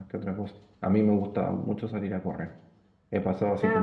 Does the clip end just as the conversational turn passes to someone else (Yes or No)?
No